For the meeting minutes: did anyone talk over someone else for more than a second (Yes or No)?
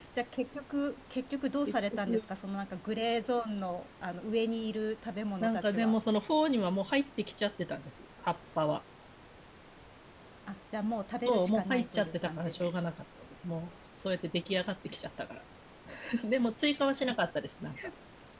Yes